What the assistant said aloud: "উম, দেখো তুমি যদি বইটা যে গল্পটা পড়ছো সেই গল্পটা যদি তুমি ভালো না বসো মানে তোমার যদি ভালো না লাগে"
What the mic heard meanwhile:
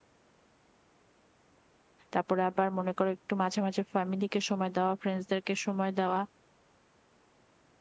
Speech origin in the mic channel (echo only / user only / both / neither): user only